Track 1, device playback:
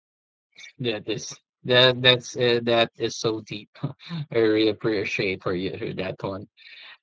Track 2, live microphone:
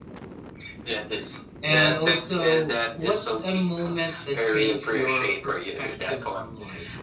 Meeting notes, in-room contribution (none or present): present